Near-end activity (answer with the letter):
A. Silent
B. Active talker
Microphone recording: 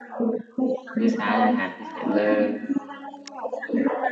B